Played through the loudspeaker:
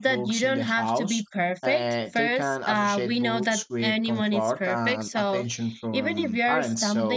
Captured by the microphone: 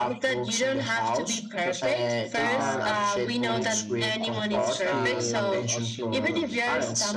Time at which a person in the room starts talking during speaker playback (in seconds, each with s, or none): 1.6 s